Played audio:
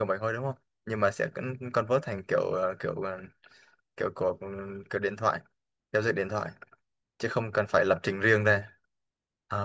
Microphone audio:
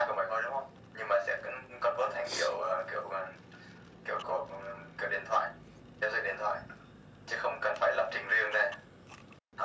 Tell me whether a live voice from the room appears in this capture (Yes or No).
No